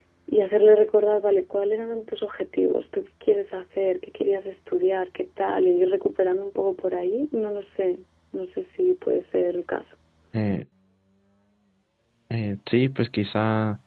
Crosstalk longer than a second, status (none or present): none